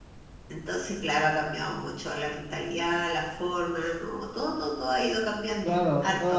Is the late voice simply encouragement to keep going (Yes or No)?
No